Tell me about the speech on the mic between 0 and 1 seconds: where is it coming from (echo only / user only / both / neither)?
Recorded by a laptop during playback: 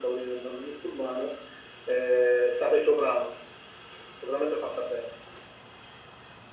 echo only